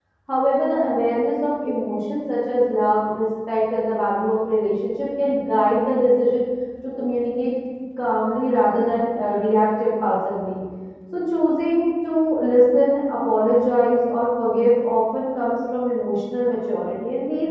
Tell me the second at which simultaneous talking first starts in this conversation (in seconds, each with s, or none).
none